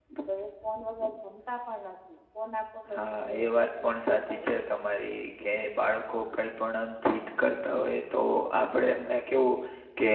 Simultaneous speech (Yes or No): Yes